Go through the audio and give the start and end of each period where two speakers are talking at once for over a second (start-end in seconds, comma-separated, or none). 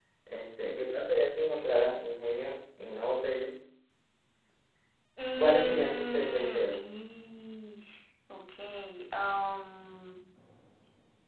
5.4-6.8